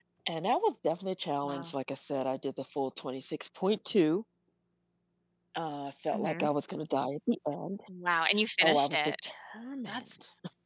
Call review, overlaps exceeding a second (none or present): none